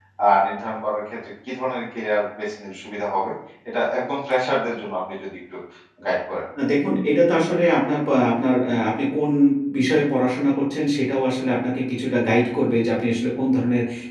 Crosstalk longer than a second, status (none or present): none